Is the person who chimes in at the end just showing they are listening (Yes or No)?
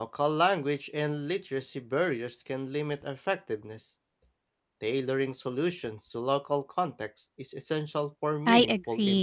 No